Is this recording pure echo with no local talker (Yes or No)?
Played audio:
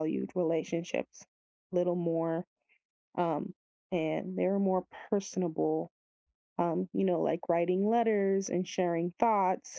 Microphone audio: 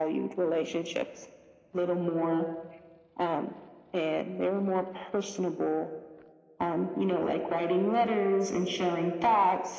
Yes